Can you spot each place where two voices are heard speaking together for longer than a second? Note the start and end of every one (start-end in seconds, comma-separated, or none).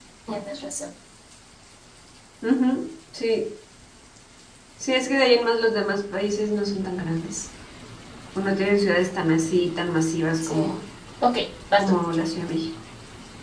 none